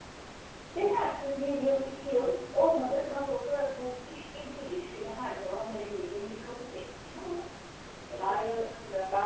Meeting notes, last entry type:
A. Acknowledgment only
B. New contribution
B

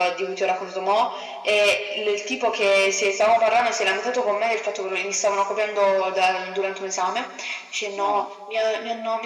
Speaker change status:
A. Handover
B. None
B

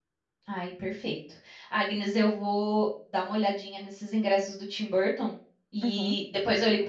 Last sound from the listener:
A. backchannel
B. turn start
A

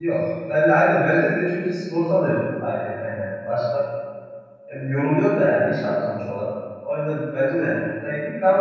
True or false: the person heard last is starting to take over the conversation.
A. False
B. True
A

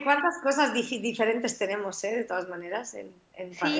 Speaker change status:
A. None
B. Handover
B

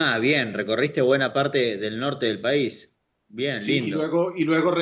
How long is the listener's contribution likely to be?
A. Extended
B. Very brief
A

